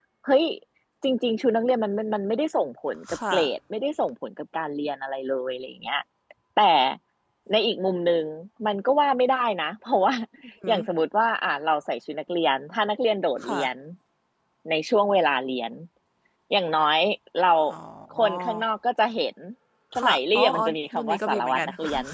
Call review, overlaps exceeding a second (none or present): present